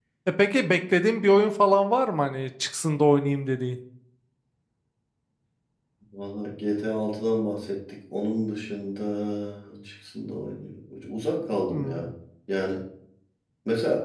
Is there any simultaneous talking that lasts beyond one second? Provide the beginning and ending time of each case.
none

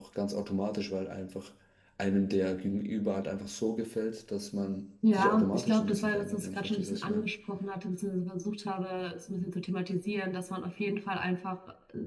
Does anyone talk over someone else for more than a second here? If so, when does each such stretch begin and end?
5.1-7.2

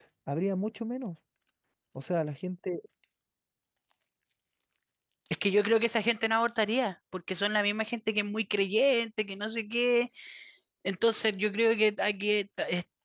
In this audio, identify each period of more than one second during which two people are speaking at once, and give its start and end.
none

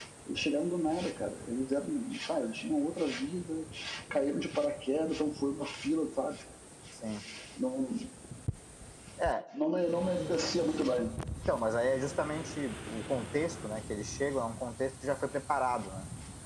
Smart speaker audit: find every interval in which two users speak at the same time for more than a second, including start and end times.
none

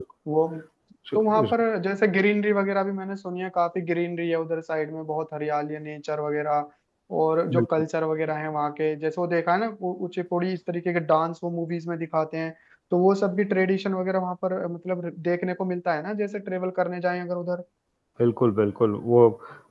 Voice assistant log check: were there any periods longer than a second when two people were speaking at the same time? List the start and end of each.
none

